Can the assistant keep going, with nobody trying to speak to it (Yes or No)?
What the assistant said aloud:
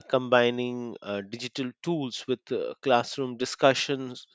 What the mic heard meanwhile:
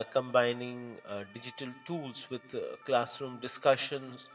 Yes